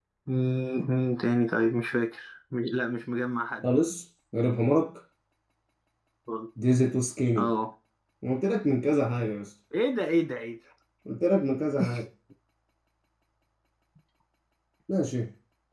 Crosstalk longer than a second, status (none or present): none